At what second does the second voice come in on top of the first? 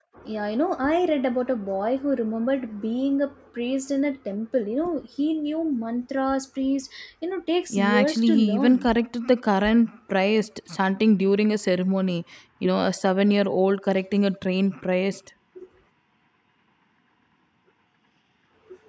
8 s

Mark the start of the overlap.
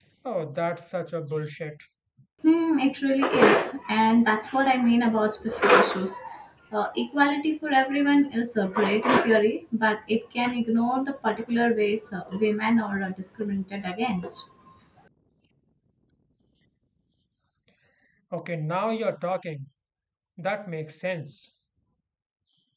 none

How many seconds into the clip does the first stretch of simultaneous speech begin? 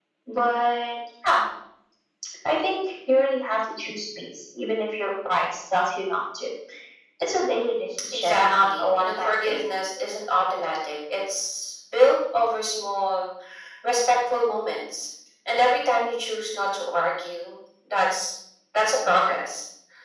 8 s

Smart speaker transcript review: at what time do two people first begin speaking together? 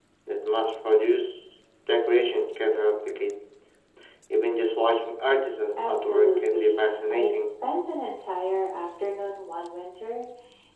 6 s

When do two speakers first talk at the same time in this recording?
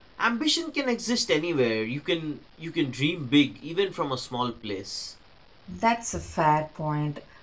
none

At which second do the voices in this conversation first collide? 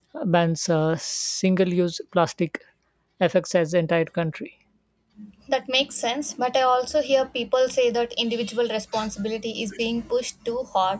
none

